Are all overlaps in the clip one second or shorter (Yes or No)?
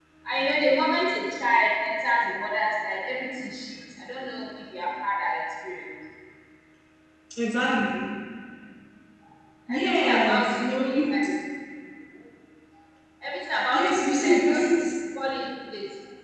No